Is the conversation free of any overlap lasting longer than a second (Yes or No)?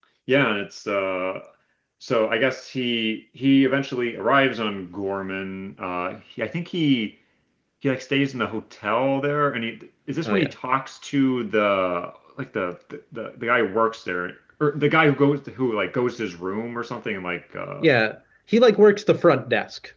Yes